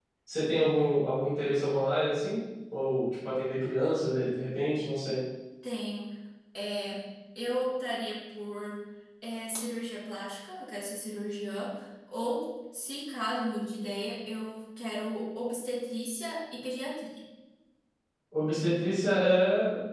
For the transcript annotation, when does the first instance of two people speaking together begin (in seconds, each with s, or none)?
none